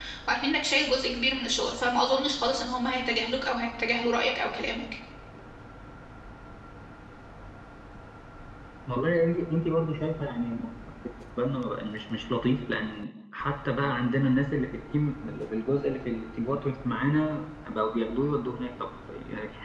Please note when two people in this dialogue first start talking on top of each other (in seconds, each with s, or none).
none